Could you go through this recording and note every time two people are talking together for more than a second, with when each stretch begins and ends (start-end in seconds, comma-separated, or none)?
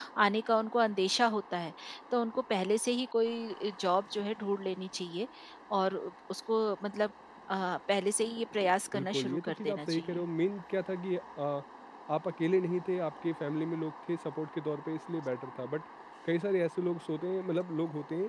8.9-10.2